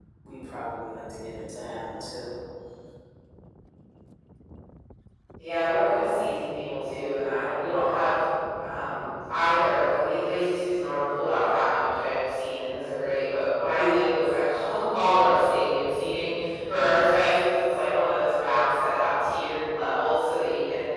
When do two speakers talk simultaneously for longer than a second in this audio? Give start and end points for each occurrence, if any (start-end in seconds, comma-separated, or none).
none